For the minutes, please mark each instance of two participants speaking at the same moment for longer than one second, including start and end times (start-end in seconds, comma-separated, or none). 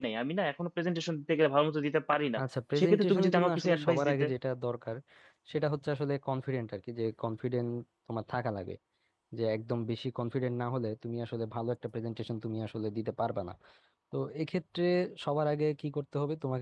2.8-4.2